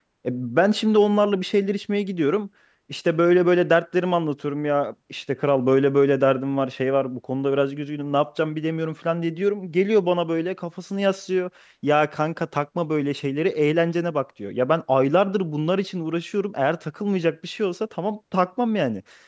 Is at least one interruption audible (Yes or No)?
No